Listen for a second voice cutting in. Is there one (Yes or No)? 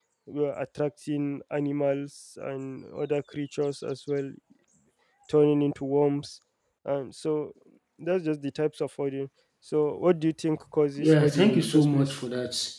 Yes